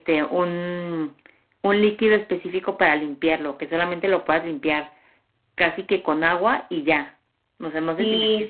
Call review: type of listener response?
taking over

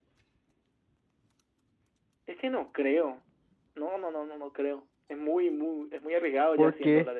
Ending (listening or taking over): taking over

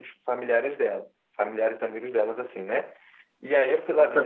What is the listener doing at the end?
taking over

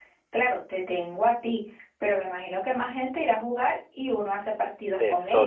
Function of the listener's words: taking over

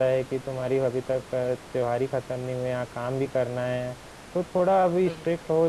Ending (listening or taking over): listening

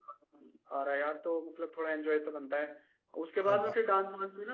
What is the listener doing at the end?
listening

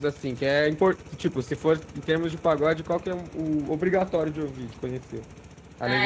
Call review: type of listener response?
taking over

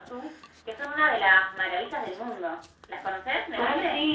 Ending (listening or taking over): taking over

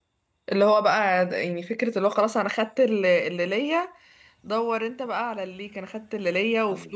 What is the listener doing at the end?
listening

